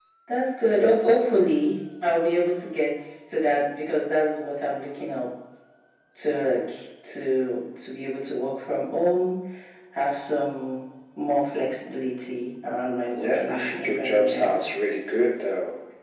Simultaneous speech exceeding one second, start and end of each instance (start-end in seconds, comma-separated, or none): 13.1-14.5